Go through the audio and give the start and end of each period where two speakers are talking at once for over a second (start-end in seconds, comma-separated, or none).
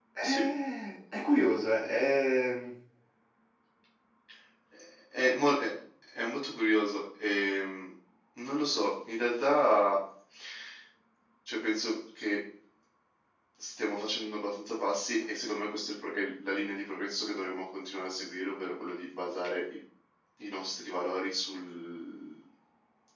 none